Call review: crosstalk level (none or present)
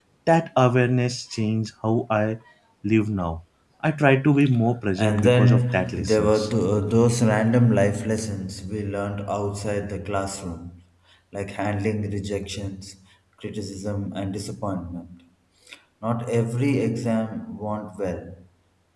present